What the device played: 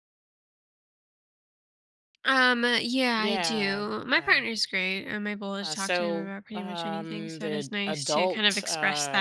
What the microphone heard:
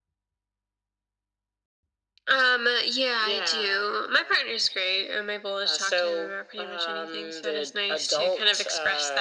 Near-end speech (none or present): none